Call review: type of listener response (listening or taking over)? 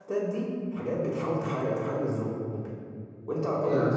listening